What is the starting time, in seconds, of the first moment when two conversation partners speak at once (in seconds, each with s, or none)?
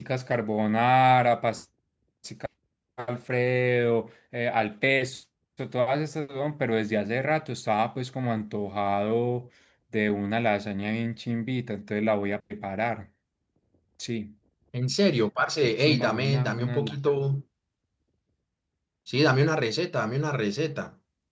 15.4 s